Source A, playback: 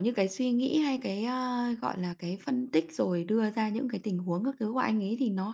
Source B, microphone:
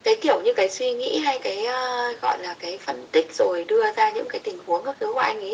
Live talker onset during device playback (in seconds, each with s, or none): none